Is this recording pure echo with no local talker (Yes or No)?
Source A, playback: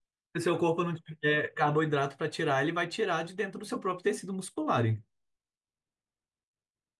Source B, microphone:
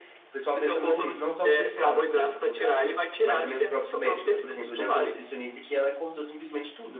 No